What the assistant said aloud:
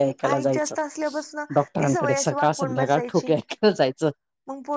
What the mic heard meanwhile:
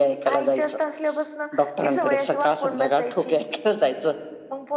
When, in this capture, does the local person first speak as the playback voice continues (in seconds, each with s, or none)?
none